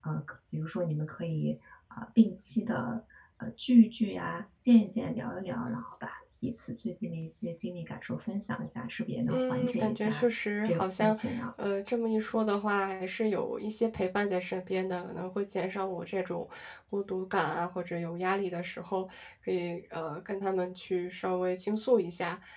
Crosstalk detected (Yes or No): Yes